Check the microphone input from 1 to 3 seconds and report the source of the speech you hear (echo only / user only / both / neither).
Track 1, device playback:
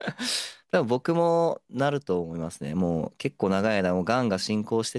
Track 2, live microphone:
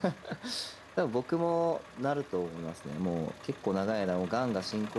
echo only